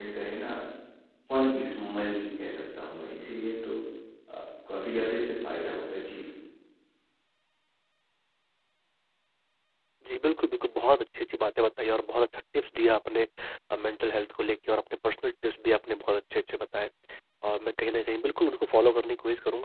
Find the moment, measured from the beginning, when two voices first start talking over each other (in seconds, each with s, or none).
none